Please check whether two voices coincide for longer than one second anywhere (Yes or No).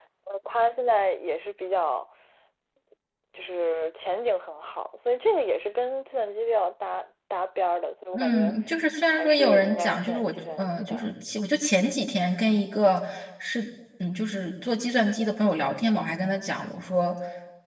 Yes